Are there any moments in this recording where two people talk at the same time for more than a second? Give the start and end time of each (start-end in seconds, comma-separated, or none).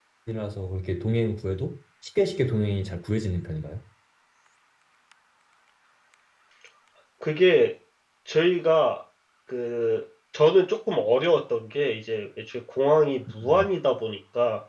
none